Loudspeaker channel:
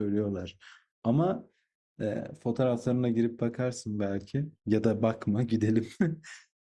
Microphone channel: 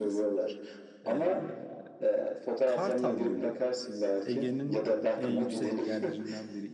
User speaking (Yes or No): Yes